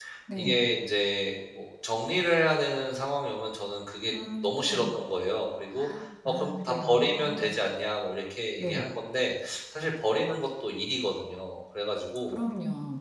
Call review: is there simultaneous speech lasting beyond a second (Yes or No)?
Yes